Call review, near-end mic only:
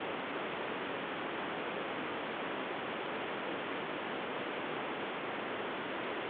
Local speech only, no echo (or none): none